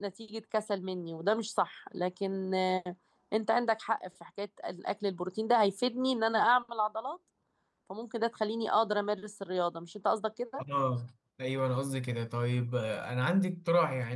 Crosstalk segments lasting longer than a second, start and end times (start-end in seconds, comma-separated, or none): none